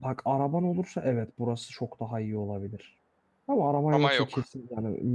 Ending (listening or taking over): listening